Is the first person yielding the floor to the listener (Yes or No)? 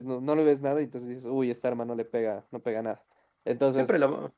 Yes